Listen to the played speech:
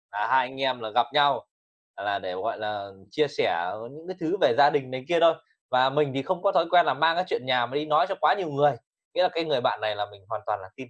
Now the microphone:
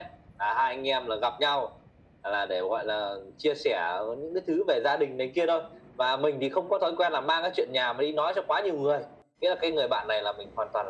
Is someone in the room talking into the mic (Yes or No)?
No